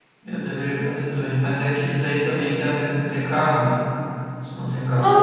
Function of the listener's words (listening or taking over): taking over